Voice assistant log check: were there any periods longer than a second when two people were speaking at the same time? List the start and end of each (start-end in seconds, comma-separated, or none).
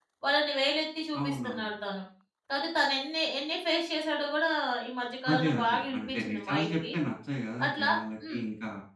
5.3-6.8